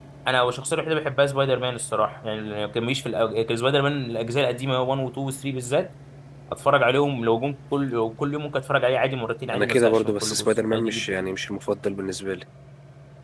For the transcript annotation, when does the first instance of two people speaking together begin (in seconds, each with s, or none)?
9.5 s